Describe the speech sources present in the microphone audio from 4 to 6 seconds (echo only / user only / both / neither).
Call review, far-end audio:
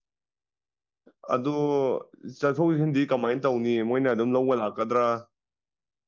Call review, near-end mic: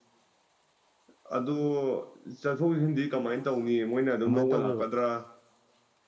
both